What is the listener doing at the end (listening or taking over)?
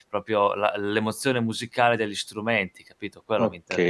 taking over